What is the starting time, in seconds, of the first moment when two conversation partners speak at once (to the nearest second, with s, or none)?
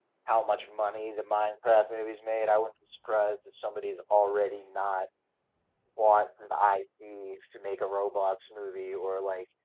none